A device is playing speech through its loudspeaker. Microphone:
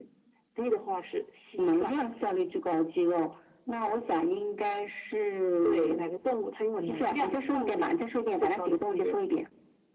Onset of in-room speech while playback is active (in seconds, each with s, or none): none